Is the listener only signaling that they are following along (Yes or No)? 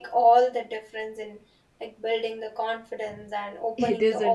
No